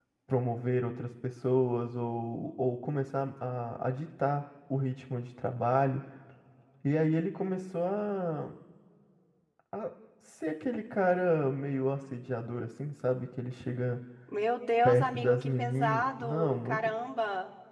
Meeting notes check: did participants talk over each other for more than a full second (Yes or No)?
Yes